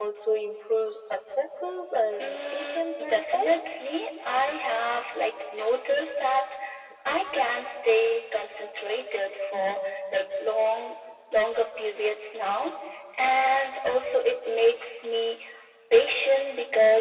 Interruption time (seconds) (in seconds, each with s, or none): 2.2 s